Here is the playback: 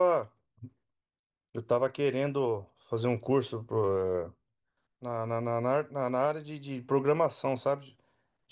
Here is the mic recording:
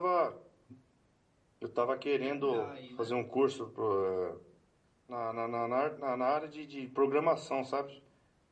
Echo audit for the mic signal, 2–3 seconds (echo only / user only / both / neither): both